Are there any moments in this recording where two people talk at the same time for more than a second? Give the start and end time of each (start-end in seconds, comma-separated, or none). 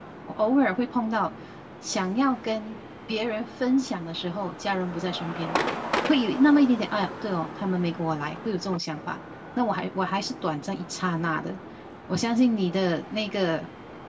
none